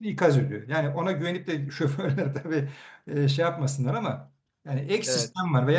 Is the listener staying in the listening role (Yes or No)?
Yes